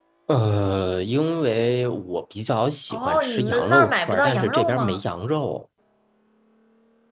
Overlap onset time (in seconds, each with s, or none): 2.9 s